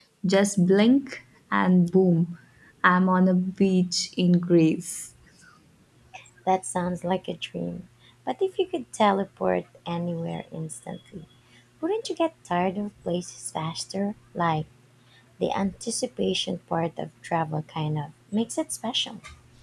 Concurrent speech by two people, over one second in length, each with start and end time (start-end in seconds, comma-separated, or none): none